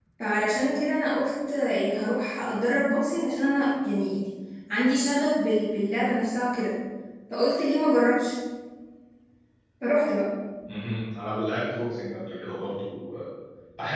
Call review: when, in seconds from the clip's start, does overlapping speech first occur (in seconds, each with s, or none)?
none